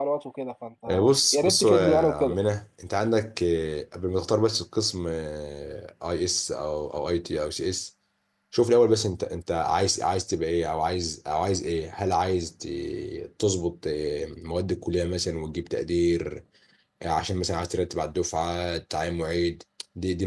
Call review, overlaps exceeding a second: present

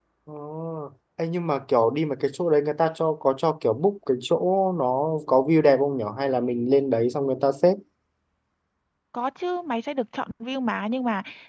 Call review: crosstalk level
none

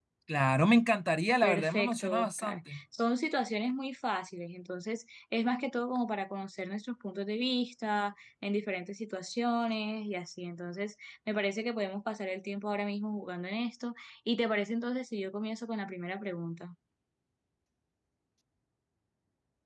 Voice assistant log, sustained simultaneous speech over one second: present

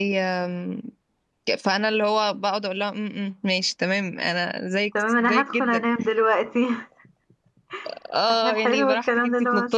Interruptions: present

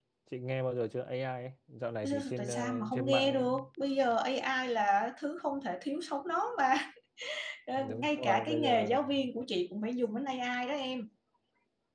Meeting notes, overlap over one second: present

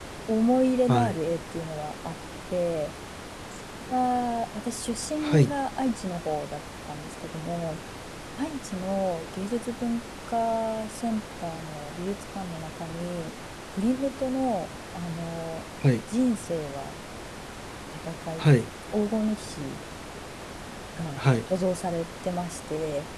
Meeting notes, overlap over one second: none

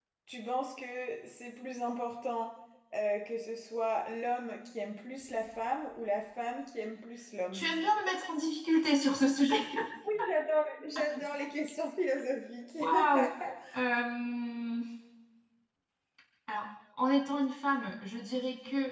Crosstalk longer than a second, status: none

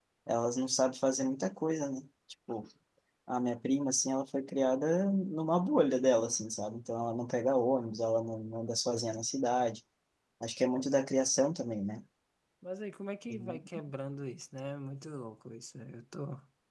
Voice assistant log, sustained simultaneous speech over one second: none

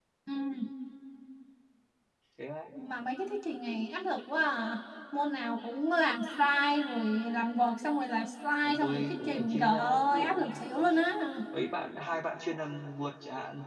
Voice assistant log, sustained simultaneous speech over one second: present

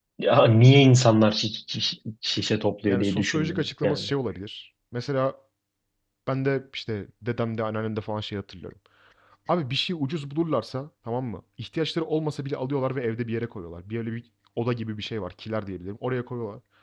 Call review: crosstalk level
present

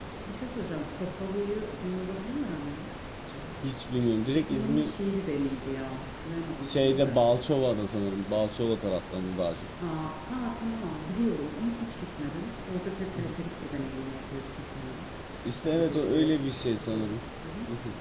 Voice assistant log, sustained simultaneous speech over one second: present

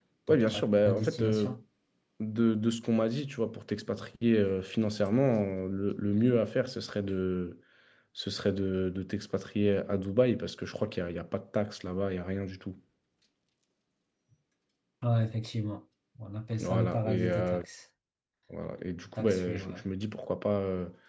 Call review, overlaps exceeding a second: present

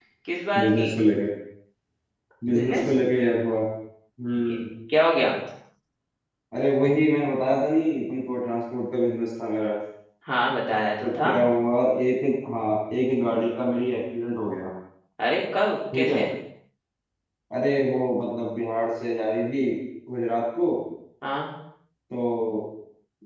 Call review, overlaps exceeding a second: none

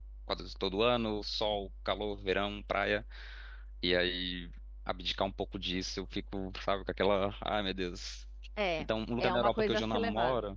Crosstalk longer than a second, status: present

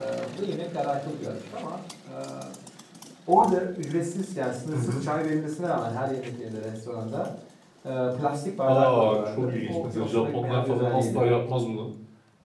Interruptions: present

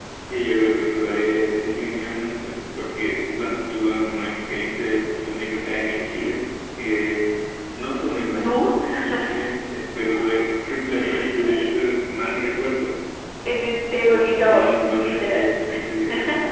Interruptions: present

